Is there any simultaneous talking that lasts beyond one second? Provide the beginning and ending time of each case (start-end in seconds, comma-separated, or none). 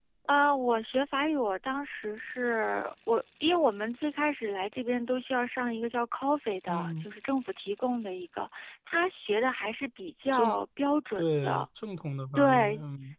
none